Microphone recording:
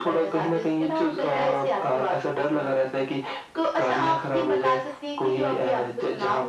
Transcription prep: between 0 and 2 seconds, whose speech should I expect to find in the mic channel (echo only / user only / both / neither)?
echo only